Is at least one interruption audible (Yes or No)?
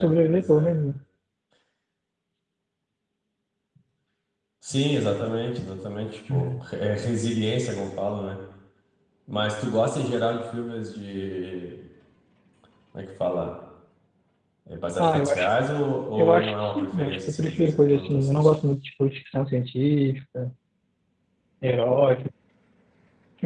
Yes